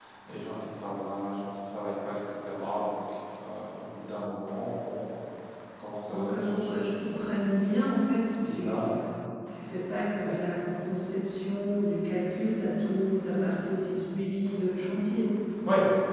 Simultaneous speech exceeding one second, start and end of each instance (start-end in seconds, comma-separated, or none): 6.1-7.3